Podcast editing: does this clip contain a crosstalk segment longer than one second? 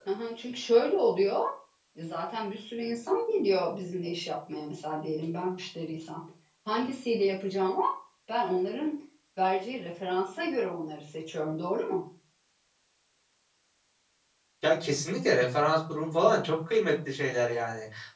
No

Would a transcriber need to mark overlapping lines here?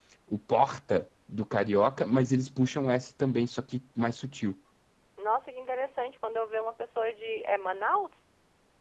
No

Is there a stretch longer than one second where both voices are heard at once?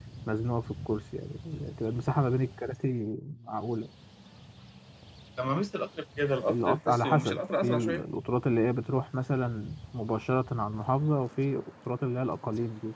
Yes, from 6.5 s

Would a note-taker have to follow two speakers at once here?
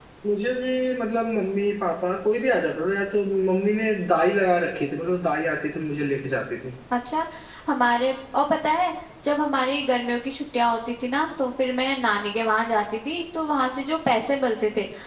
No

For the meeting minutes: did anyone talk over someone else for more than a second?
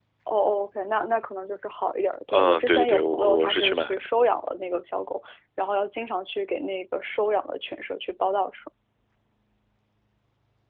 Yes, from 2.3 s

